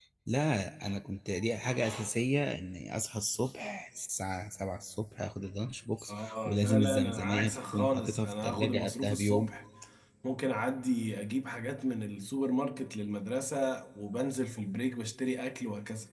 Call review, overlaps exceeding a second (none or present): present